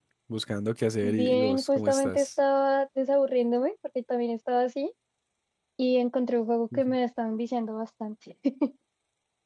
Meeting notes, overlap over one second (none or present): present